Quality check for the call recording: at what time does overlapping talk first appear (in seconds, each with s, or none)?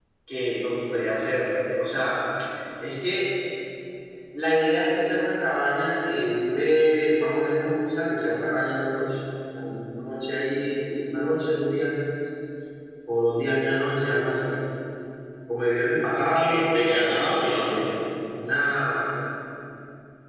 16.2 s